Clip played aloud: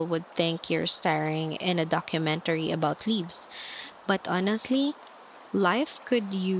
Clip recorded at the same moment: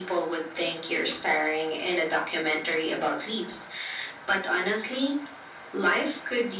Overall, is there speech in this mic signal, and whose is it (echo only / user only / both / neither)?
echo only